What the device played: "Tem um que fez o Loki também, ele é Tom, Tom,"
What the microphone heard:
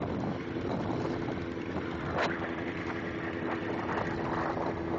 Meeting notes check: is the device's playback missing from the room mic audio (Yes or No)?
Yes